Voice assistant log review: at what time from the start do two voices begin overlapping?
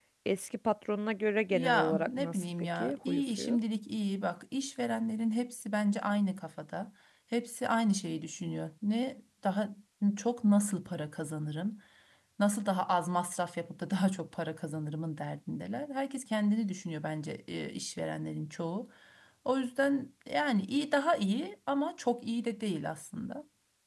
2 s

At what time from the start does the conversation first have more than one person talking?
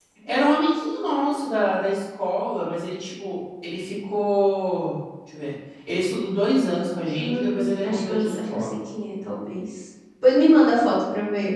7 s

